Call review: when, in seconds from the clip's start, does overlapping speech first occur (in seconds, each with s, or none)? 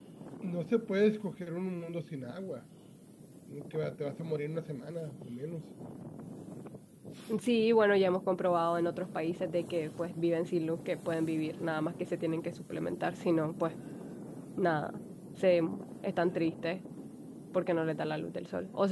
none